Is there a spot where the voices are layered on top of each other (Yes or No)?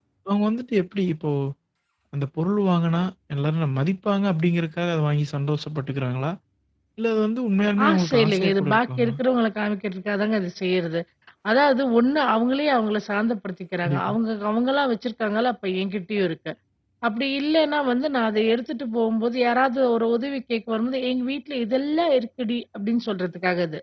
Yes